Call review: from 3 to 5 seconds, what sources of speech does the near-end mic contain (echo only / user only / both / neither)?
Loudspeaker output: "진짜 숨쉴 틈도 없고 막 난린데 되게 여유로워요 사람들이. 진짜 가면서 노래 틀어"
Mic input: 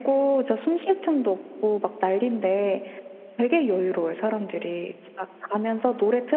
echo only